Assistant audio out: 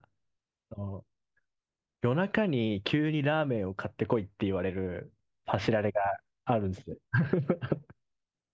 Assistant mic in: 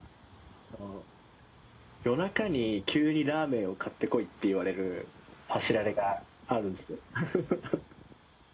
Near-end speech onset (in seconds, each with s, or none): none